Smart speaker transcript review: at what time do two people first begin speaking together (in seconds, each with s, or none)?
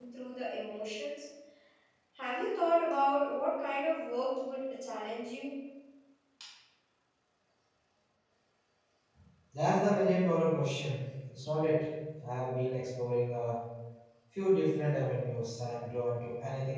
none